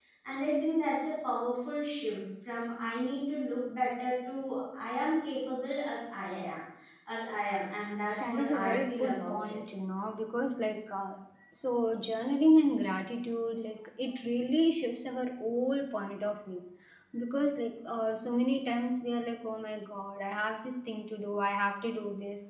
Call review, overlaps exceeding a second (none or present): present